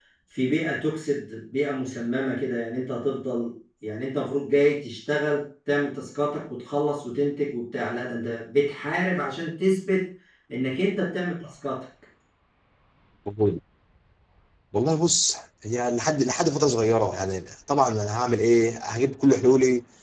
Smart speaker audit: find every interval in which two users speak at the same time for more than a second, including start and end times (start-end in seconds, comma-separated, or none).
none